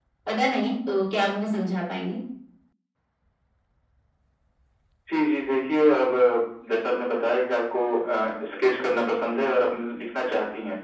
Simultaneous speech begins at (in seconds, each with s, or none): none